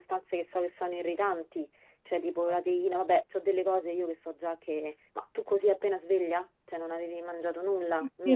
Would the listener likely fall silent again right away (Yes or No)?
No